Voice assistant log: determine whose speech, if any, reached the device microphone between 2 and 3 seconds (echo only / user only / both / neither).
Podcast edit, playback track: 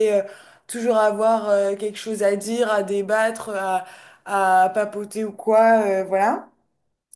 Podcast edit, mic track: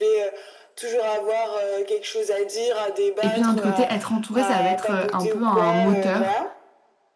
echo only